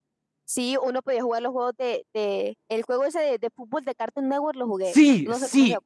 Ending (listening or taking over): taking over